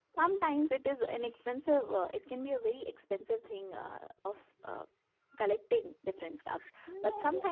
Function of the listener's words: listening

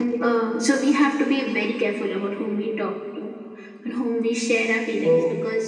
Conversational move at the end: listening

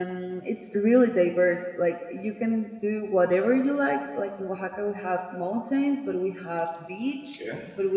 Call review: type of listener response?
listening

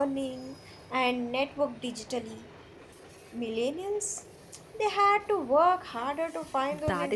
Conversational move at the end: taking over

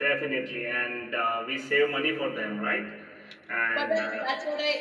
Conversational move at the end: taking over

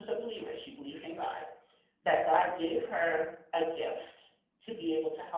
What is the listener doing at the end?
listening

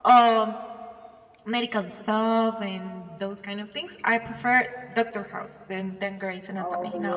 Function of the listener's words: taking over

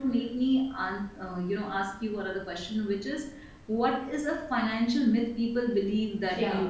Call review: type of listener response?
taking over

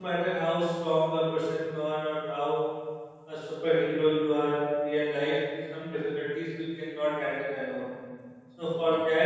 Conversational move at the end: listening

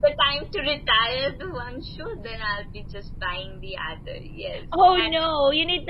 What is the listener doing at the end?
taking over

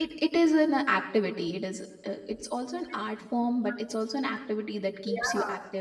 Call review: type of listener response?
taking over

